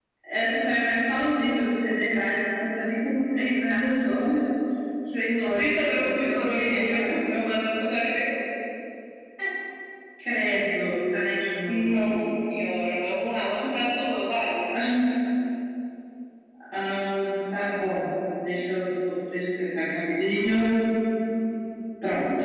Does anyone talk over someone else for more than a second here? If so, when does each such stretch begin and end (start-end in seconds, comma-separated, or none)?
5.6-7.1